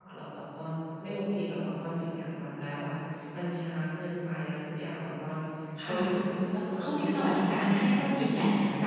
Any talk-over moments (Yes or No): Yes